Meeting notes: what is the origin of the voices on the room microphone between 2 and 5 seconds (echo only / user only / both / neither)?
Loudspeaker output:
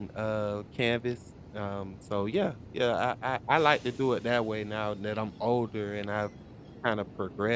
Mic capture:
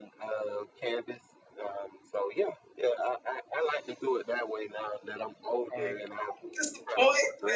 echo only